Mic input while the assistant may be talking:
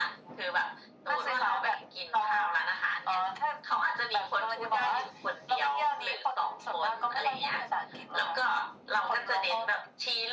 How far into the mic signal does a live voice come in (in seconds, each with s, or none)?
none